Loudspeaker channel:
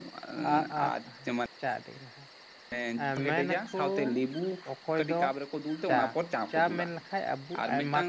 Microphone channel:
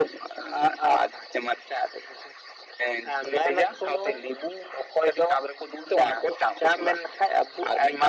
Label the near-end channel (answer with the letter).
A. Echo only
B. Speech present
A